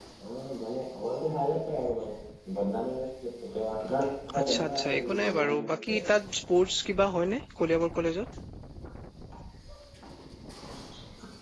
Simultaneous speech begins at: 4.4 s

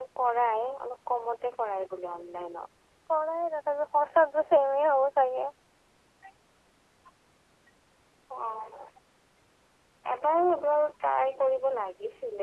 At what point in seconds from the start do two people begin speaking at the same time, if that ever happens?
none

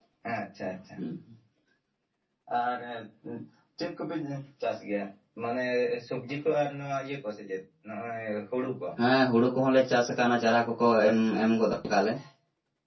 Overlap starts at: none

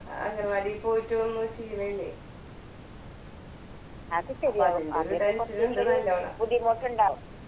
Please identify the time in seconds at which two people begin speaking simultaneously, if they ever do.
4.6 s

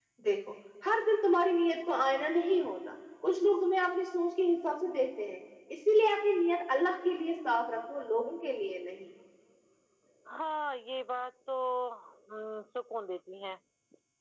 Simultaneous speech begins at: none

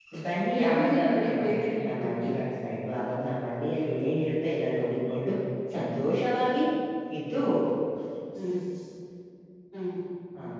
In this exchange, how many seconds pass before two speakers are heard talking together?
0.6 s

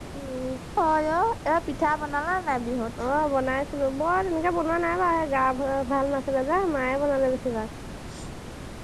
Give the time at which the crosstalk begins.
none

